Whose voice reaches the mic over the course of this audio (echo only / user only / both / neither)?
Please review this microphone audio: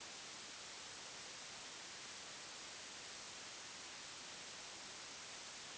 neither